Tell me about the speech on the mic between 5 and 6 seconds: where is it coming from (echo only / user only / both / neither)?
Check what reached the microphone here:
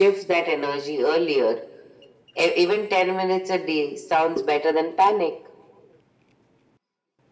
echo only